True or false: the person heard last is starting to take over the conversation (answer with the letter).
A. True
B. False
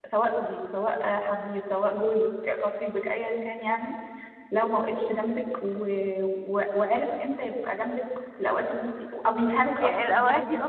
A